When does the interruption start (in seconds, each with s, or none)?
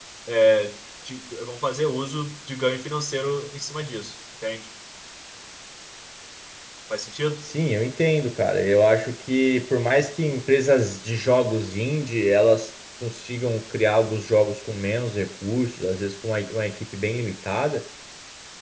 none